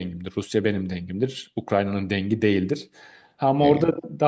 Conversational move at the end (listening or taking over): listening